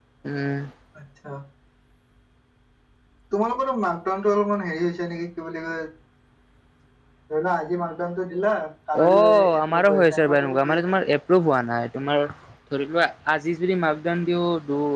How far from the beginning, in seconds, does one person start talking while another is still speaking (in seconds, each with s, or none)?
9.0 s